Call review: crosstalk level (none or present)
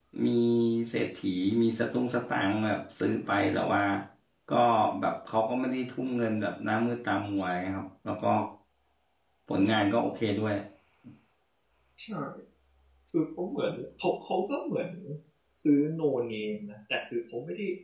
none